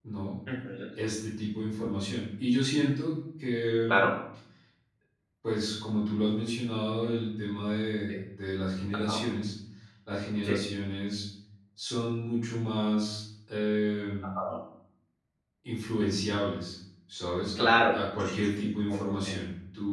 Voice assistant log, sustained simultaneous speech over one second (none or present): present